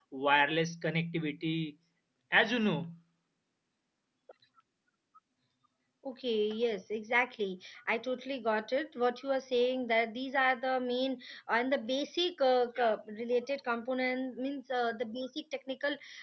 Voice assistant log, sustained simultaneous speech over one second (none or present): none